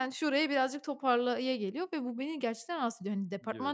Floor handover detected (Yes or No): No